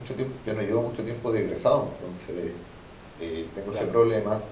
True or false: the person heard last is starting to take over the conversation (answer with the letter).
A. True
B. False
B